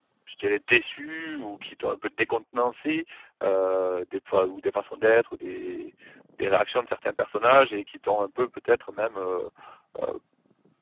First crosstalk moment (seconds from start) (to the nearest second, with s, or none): none